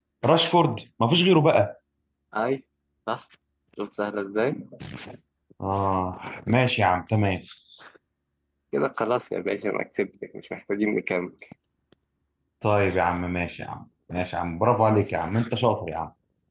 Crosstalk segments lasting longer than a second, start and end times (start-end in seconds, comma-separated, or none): none